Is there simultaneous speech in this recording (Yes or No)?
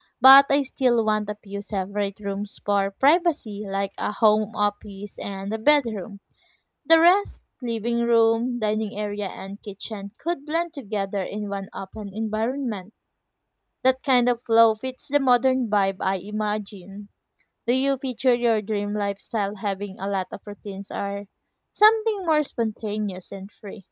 No